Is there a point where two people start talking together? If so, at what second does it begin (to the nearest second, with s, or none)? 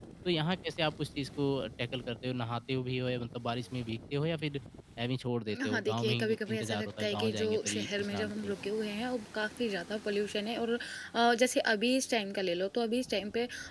6 s